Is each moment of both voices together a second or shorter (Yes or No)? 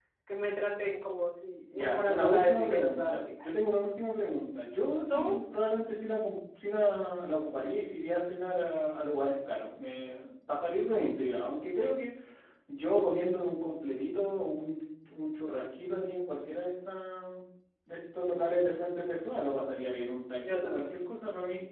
No